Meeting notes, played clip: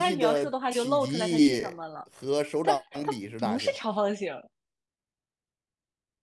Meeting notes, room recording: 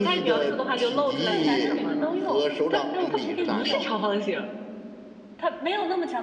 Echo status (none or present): present